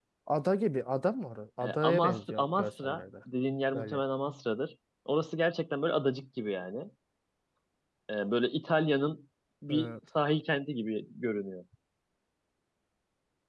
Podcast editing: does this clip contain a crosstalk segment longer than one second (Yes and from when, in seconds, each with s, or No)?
Yes, from 1.6 s